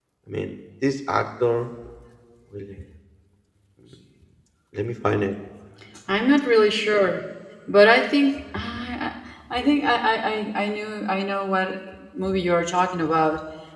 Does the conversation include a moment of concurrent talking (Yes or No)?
No